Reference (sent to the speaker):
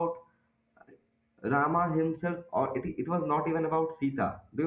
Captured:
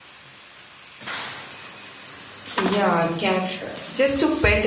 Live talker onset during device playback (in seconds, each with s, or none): 2.5 s